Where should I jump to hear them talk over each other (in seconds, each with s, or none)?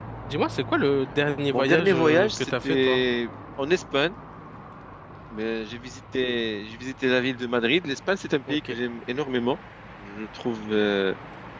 1.5 s